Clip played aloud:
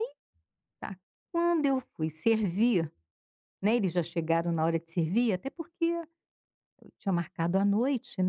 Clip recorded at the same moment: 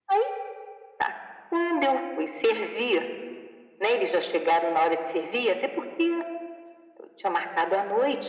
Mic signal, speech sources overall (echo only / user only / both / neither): echo only